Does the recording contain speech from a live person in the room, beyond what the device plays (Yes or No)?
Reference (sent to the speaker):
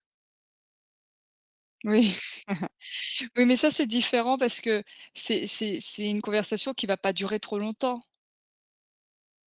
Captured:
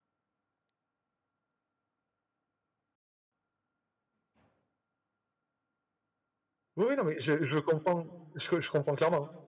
Yes